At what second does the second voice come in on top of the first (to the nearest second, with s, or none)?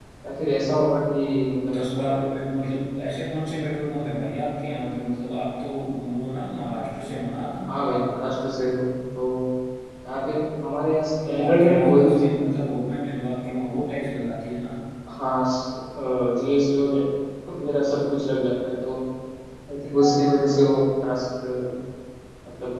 11 s